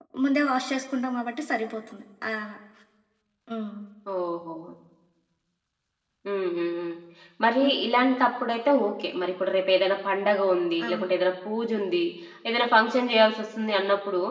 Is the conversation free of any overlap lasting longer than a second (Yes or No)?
Yes